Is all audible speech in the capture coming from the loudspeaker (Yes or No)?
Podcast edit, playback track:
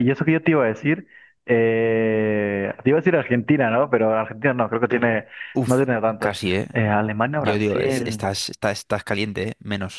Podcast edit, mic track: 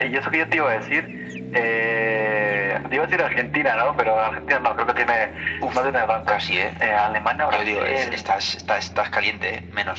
Yes